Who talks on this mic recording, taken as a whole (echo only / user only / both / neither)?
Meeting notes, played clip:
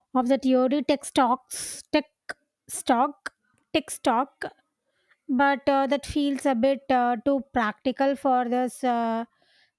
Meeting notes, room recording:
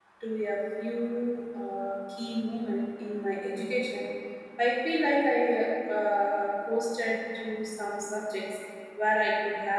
user only